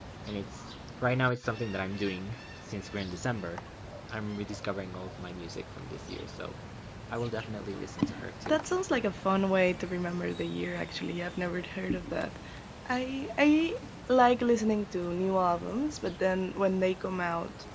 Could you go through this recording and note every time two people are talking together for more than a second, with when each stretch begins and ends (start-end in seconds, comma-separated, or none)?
none